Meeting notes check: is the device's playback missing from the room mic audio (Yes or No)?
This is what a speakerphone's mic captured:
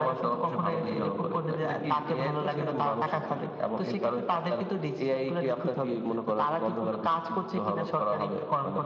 No